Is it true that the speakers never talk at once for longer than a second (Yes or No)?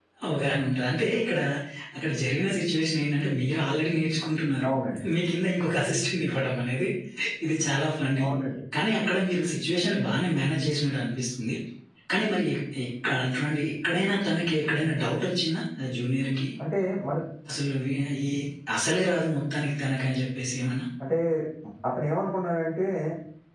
Yes